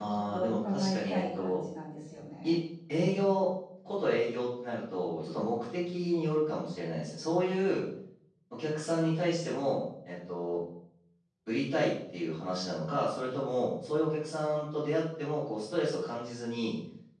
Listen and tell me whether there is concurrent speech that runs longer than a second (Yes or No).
Yes